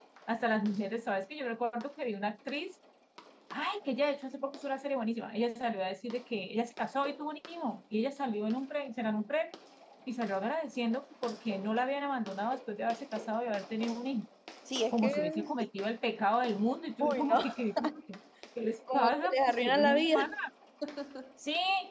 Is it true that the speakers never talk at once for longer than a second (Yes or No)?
No